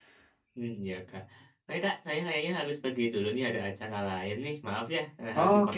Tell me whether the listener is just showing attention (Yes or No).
No